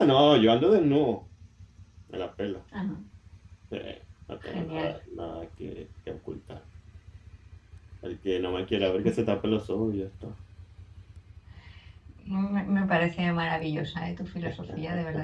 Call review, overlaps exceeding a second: none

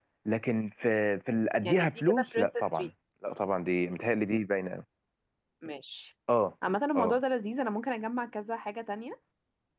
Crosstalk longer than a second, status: present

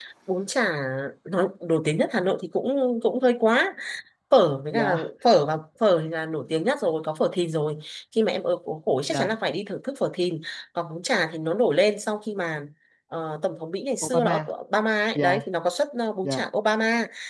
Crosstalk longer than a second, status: none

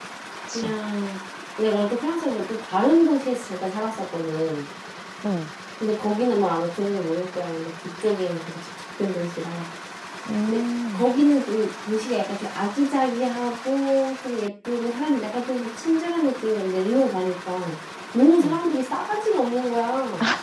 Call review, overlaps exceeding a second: none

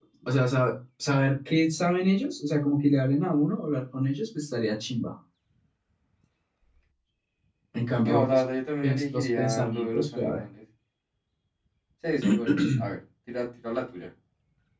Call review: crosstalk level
present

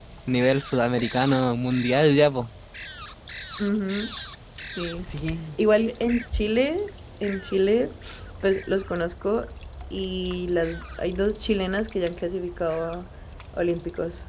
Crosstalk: none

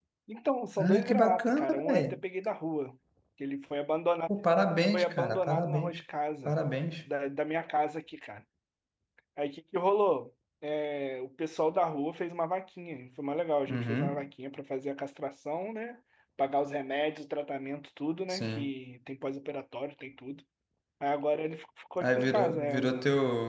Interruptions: present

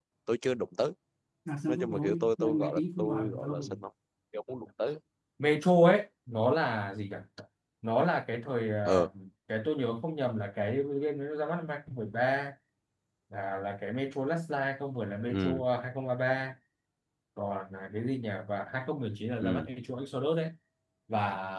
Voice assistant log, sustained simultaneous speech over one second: present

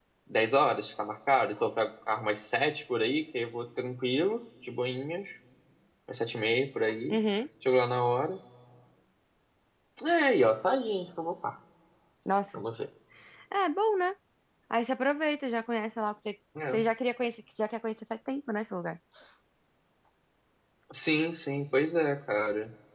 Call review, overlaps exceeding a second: none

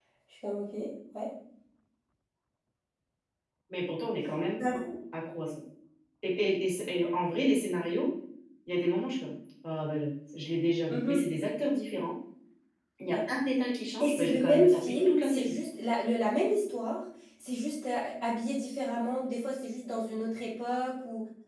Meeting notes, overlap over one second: present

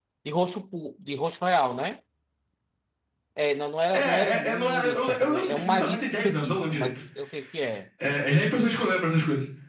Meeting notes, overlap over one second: present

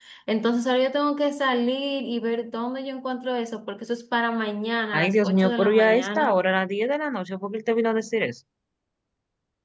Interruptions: present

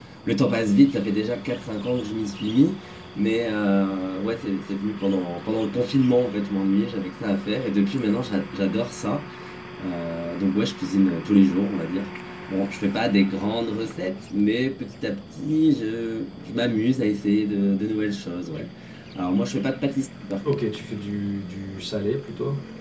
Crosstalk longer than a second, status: none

